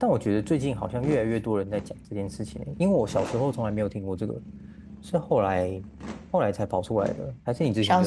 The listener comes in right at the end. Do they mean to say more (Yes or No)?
Yes